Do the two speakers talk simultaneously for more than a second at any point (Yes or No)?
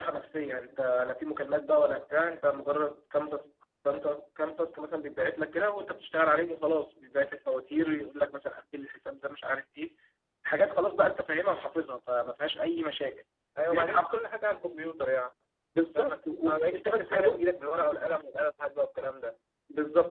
Yes